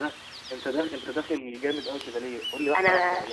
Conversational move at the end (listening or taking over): listening